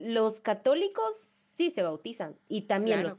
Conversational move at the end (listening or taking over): taking over